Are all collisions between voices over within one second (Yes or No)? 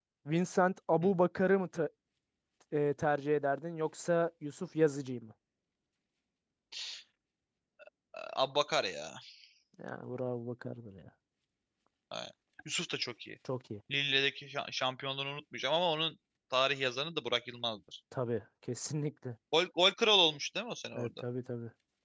Yes